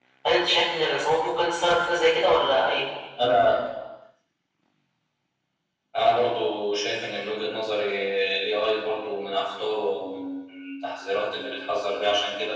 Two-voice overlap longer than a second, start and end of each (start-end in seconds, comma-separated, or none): none